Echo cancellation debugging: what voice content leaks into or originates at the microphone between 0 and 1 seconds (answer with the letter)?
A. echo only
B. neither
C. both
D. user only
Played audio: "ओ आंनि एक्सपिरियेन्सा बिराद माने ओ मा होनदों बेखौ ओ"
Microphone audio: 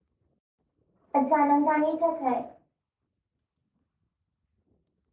B